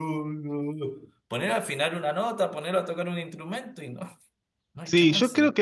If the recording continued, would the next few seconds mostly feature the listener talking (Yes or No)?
Yes